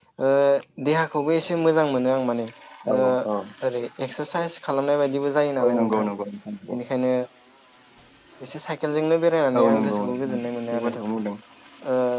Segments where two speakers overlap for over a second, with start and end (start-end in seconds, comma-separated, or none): 9.6-10.9